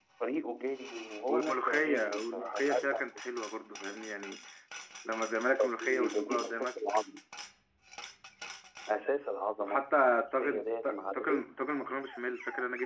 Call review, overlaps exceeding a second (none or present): present